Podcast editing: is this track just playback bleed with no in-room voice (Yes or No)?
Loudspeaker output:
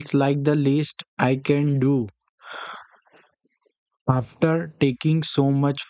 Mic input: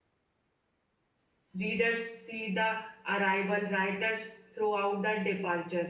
No